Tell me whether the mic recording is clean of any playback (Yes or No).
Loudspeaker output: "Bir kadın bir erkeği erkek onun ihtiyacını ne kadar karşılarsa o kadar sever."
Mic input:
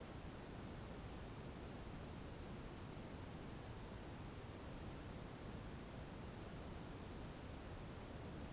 Yes